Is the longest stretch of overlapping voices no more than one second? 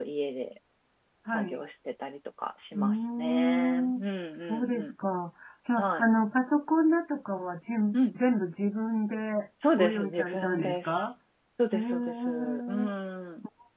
No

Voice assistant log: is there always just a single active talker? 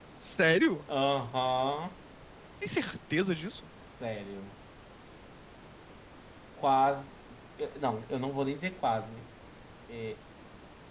Yes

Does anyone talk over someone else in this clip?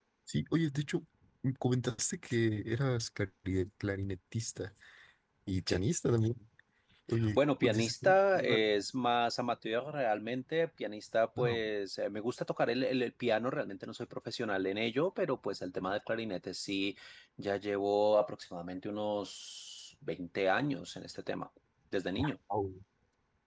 Yes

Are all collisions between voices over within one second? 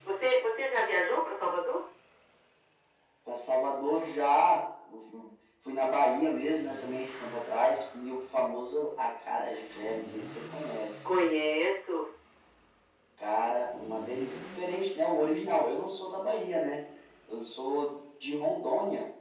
Yes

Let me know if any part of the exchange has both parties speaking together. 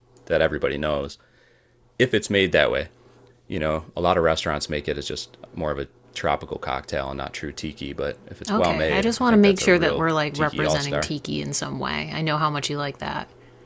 Yes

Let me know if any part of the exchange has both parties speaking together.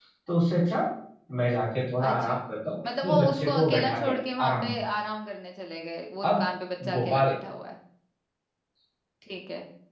Yes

